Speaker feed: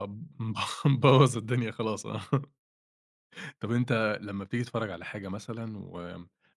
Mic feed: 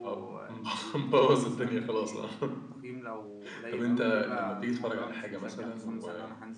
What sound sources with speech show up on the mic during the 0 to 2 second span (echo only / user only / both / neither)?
both